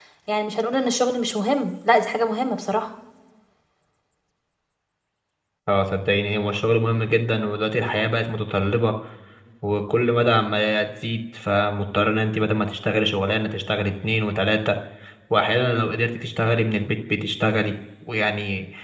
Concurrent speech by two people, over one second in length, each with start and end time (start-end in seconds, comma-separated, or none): none